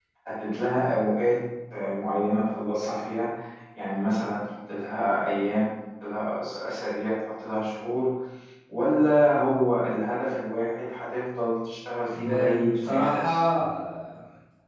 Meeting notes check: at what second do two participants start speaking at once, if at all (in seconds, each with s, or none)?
12.2 s